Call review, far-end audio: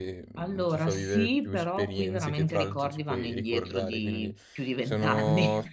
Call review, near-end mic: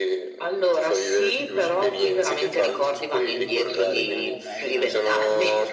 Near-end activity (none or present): present